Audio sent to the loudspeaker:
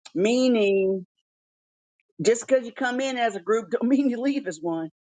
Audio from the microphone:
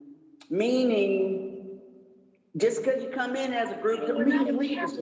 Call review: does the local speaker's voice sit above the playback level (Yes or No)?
No